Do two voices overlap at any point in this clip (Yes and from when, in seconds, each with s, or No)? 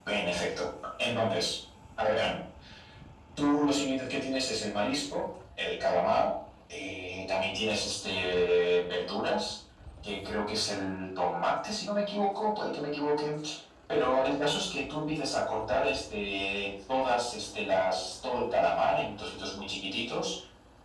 No